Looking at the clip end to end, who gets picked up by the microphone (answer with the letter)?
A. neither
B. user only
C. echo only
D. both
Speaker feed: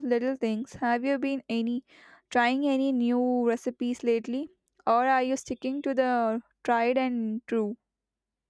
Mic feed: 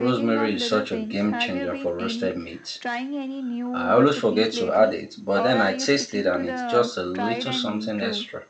D